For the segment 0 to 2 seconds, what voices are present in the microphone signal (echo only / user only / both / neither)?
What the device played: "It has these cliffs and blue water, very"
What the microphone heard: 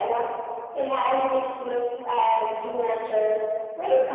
echo only